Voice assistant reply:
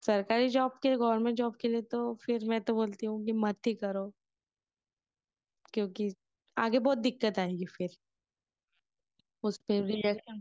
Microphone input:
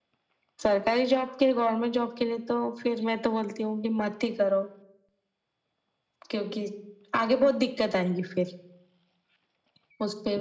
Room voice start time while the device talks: none

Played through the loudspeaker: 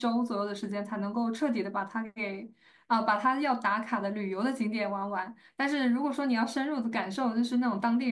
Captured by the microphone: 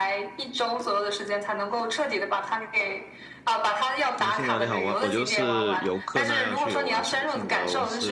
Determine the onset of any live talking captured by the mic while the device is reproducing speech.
4.1 s

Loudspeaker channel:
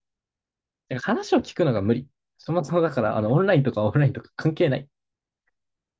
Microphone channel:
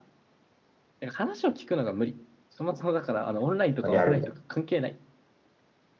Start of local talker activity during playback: 3.9 s

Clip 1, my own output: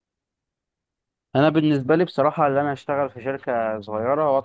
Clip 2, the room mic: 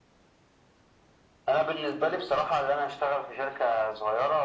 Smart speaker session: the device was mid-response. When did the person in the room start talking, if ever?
none

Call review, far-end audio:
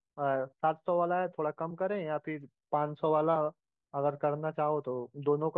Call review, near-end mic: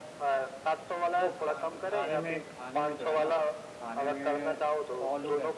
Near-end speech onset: 1.2 s

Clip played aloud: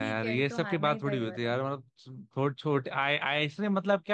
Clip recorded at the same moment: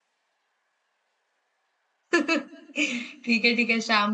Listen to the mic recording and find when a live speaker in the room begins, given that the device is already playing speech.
2.1 s

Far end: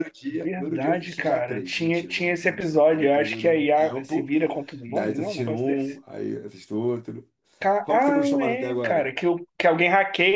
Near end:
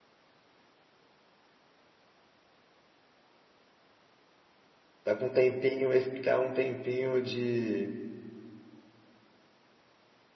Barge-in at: 5.0 s

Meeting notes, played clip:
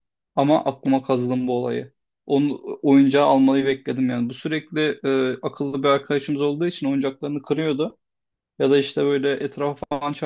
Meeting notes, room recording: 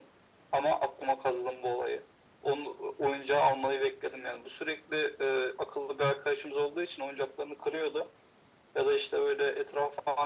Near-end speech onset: none

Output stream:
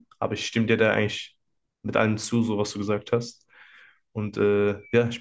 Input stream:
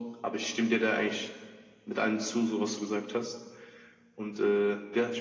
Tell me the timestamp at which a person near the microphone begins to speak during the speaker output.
none

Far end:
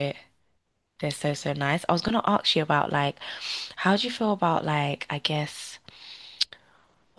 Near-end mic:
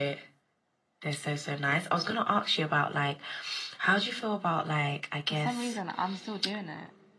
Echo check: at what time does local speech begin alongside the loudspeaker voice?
5.3 s

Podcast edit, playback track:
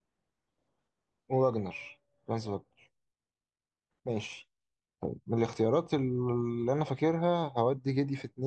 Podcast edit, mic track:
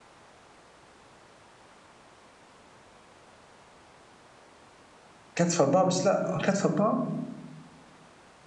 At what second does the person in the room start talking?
5.4 s

